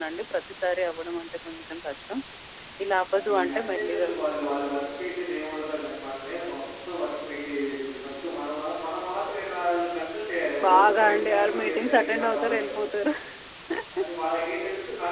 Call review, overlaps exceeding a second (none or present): present